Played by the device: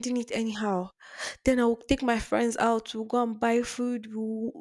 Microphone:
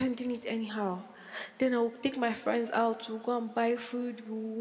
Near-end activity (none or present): none